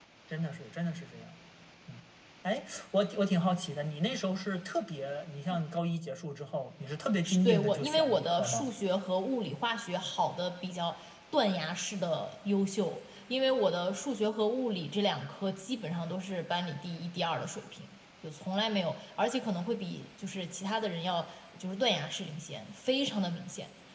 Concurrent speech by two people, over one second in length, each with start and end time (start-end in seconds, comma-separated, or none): 7.4-8.7